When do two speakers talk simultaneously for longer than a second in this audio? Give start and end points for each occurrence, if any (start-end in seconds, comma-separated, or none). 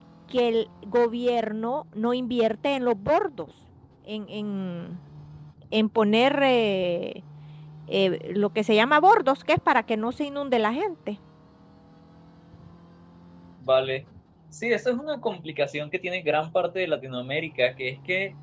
none